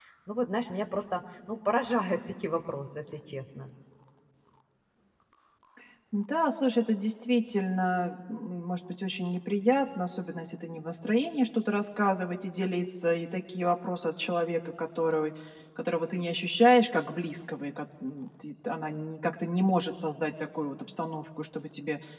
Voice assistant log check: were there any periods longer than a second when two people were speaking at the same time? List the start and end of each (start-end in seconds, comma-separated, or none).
none